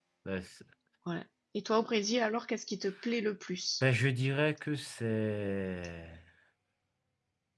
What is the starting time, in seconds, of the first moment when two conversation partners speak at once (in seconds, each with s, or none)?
none